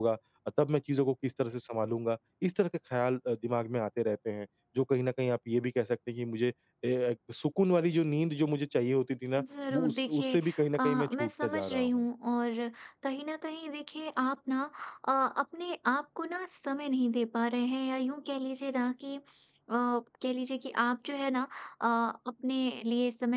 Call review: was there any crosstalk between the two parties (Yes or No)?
Yes